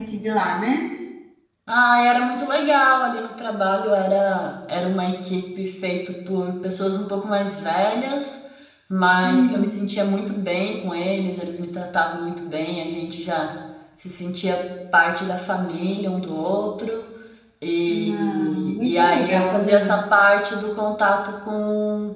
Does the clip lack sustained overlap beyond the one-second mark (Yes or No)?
No